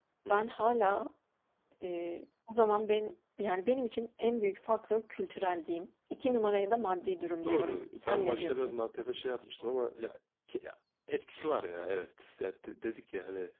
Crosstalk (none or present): present